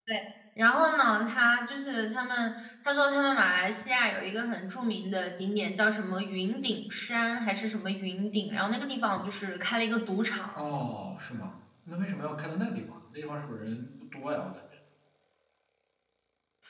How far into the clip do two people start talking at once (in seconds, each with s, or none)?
none